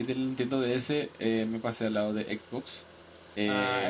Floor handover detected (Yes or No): No